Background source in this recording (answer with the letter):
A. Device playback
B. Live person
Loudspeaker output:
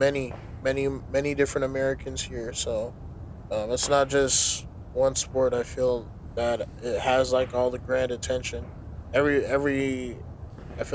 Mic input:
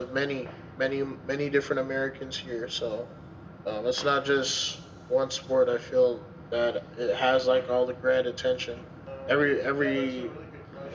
B